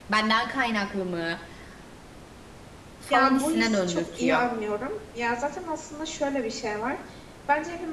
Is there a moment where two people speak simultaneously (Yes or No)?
Yes